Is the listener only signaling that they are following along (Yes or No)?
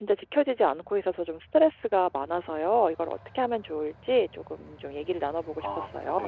No